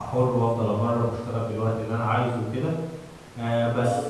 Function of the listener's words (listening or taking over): listening